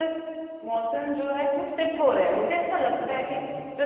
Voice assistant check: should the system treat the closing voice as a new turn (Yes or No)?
No